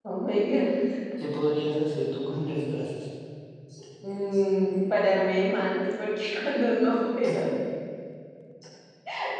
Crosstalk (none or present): none